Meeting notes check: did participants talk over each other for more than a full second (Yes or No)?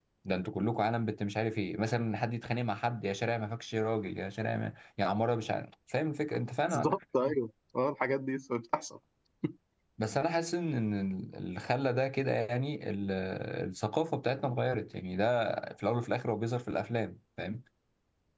No